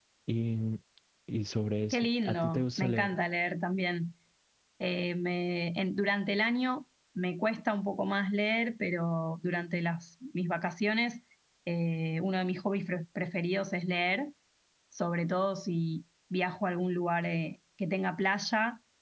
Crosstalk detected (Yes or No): Yes